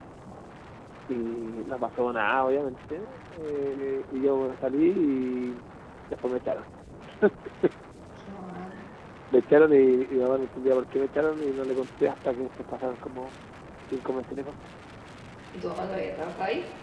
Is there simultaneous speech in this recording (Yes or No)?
No